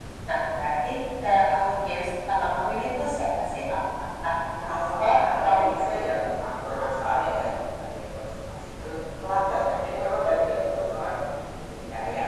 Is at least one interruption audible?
Yes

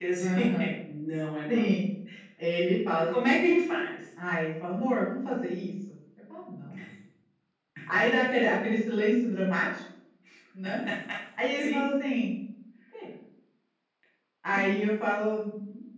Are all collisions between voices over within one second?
Yes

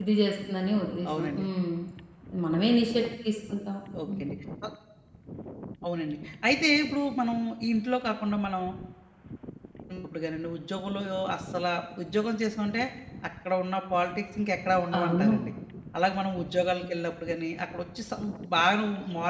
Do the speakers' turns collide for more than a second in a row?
No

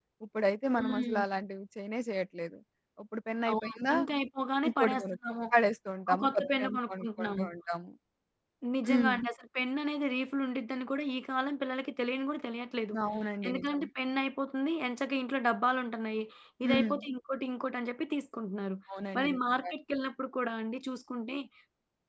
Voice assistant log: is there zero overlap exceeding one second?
No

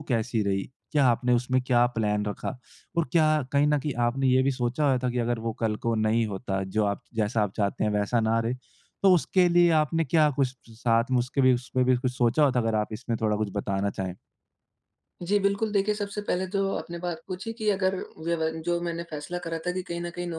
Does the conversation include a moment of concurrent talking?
No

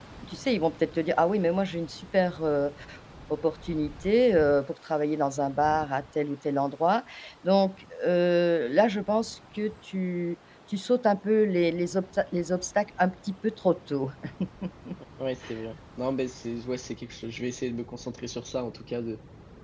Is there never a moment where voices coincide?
Yes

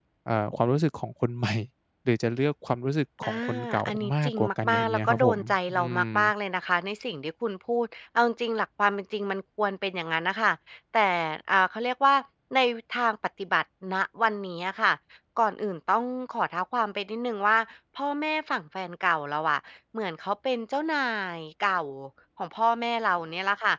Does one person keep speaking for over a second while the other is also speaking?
Yes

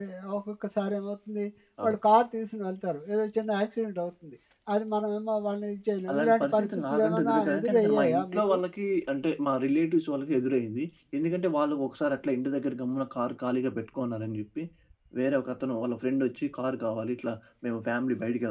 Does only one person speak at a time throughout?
No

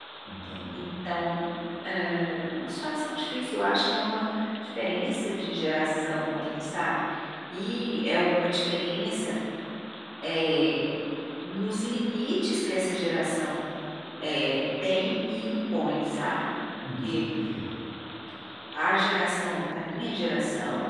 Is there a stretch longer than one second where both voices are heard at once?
No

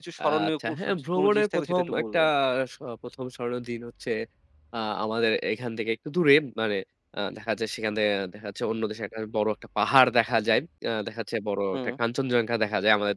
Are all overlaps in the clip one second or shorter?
No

